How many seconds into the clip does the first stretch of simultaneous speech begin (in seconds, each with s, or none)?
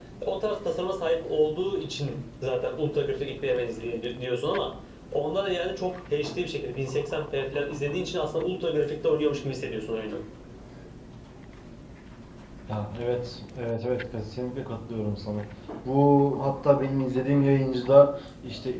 none